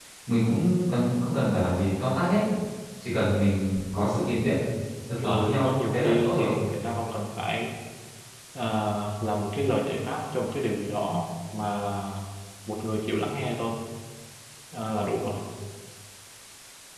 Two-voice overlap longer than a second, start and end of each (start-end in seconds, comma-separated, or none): 5.2-6.5